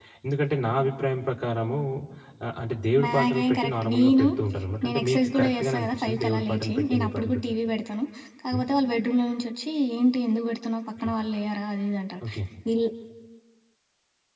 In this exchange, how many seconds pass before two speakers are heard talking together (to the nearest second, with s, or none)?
3 s